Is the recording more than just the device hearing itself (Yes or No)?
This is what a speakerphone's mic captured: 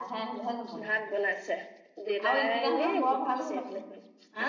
Yes